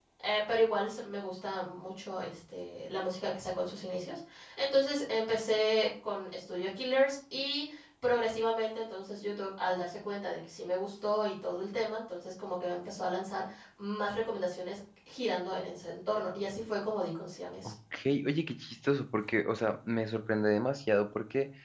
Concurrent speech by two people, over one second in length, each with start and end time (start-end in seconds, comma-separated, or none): none